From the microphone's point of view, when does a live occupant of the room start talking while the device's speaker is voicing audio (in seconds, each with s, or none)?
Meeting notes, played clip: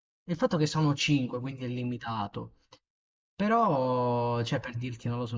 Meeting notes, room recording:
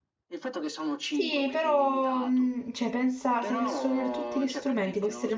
1.0 s